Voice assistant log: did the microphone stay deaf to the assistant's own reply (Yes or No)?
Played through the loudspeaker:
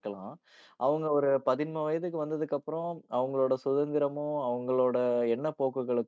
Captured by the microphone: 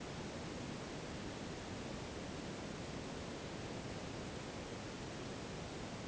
Yes